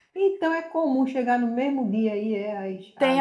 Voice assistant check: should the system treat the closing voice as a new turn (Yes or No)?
Yes